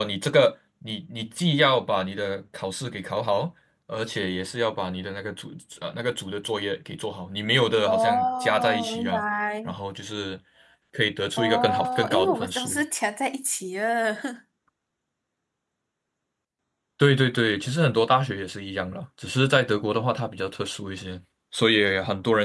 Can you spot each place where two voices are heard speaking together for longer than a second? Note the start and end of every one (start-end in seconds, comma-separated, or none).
7.9-9.2, 11.4-12.8